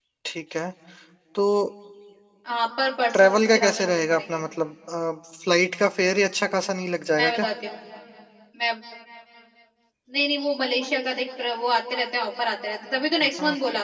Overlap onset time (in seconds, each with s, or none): 3.1 s